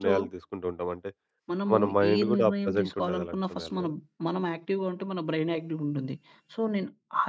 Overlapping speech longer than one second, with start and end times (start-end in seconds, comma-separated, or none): 1.8-3.9